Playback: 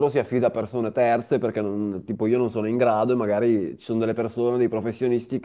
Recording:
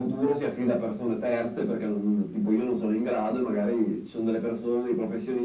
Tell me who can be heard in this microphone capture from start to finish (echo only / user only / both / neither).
echo only